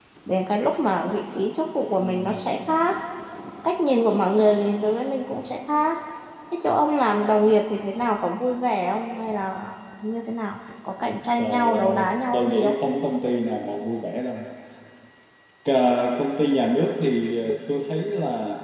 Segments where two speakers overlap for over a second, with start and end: 11.4-12.8

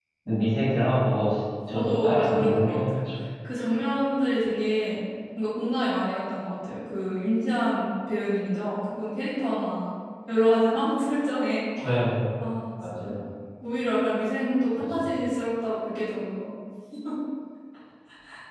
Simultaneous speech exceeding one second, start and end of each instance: 1.7-3.0

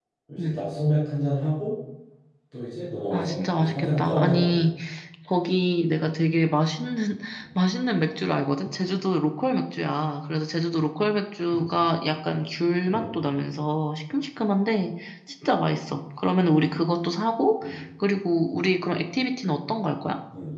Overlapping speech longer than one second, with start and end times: 3.1-4.6

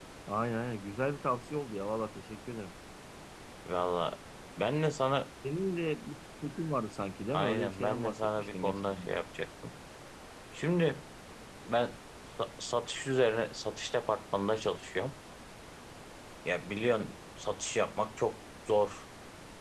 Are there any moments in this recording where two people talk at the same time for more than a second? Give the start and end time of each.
7.3-9.2

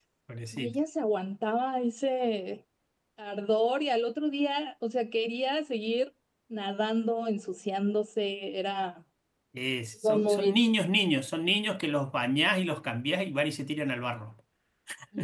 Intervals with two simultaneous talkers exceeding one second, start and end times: none

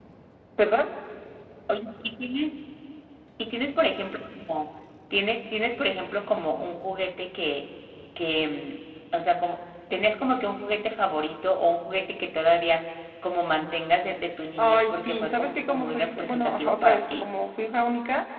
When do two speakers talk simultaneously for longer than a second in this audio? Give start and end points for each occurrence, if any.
14.6-17.2

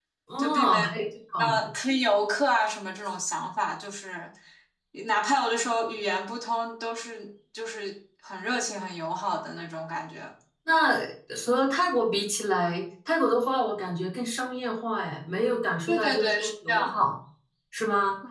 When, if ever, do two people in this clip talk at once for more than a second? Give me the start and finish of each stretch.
15.9-17.1

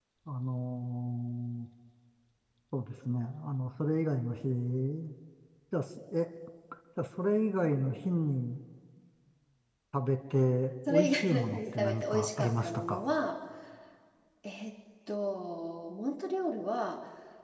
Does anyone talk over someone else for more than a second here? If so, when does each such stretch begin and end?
10.9-13.2

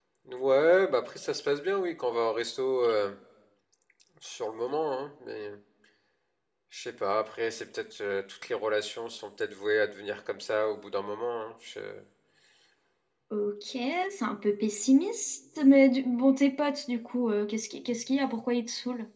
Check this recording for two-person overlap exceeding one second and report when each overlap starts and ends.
none

